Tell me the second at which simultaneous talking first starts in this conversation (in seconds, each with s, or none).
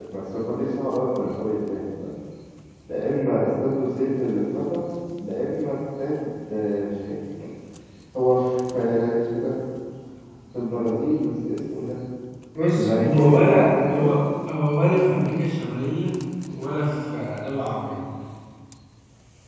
12.7 s